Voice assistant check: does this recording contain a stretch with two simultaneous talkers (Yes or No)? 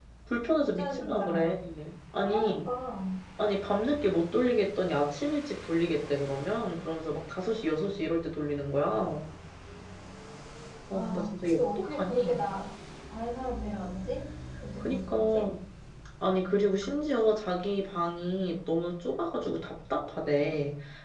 Yes